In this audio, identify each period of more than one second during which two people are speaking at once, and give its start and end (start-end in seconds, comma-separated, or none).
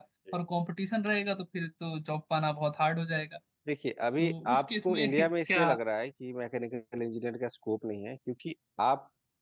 4.2-5.7